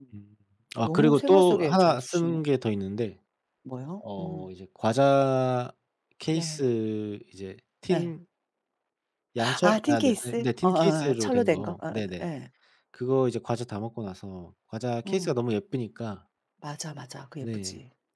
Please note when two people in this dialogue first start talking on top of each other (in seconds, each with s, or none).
0.8 s